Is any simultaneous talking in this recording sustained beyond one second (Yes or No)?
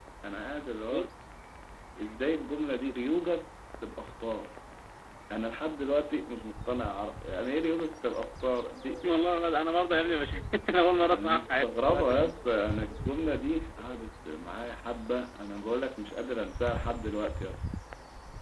Yes